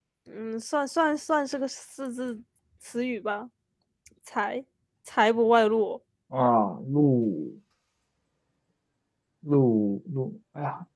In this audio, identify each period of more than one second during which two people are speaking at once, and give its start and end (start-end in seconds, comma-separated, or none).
none